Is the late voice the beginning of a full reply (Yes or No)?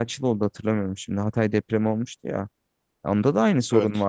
No